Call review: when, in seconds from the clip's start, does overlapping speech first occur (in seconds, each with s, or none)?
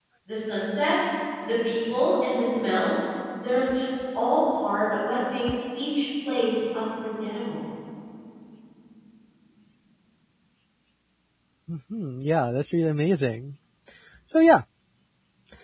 none